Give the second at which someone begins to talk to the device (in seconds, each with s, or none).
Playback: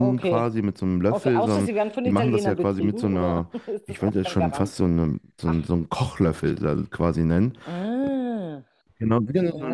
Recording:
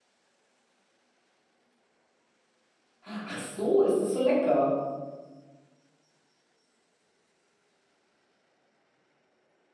3.0 s